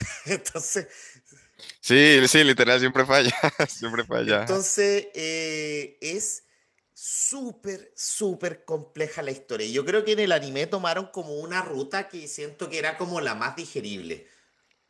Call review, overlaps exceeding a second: none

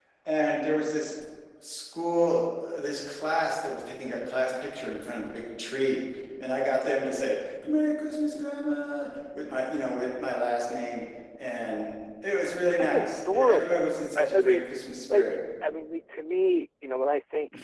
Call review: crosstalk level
present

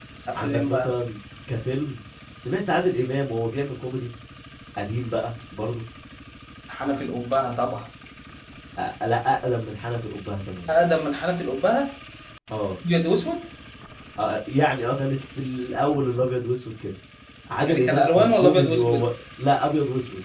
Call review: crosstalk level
present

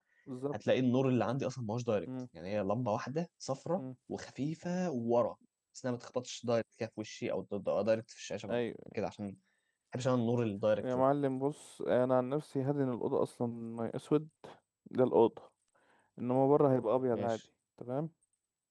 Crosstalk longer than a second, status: none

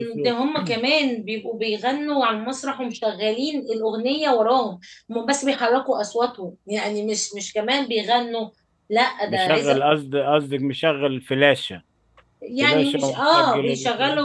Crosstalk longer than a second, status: present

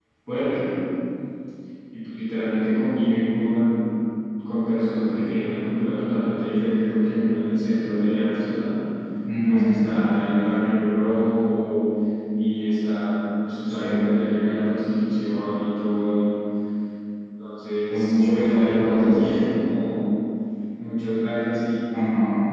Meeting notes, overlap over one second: present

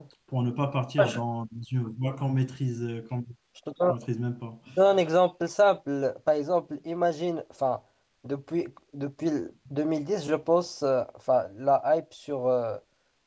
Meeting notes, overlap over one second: none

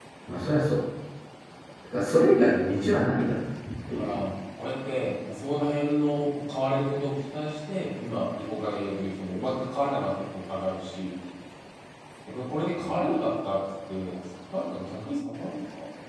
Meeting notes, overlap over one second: none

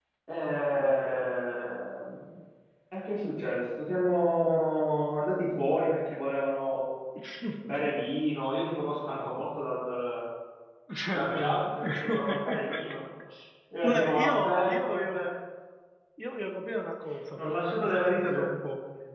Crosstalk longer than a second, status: present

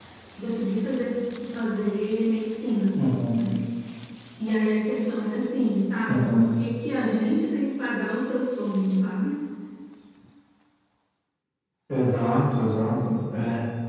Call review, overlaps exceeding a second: none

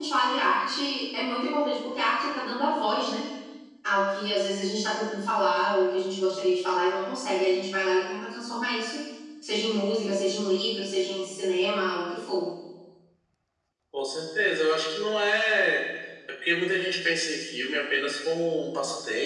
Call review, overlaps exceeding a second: none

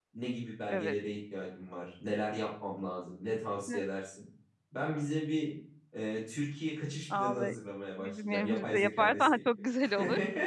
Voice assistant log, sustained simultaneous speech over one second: present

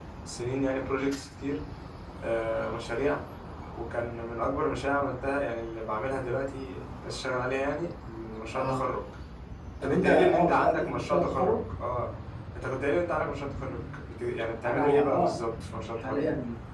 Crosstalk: present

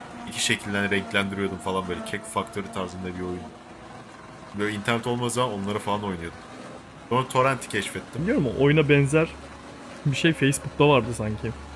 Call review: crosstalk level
none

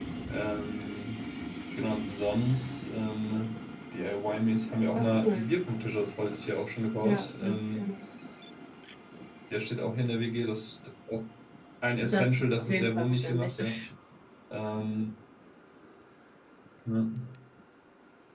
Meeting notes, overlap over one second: present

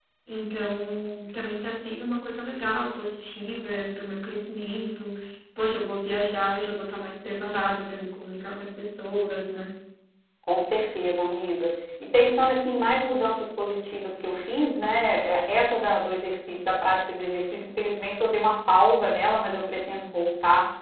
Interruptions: none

